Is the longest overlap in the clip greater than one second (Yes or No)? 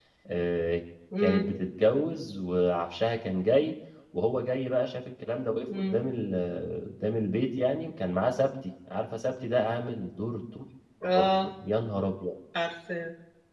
No